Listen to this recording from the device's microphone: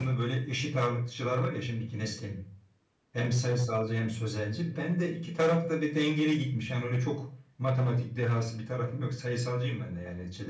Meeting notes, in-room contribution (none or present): present